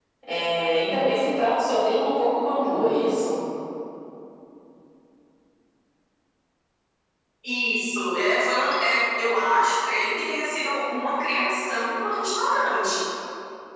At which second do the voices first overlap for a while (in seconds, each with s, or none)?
none